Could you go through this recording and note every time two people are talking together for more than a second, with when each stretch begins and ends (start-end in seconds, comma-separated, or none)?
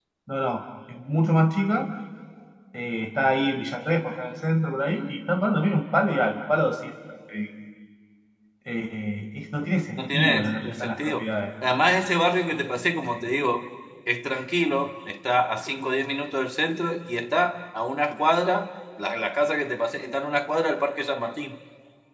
10.0-11.3